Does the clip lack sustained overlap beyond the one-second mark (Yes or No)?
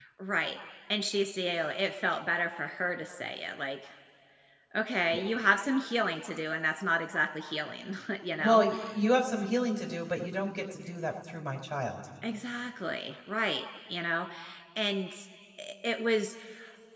Yes